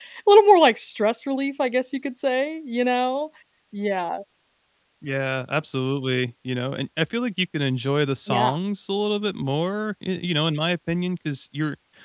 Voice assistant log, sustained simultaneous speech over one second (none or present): none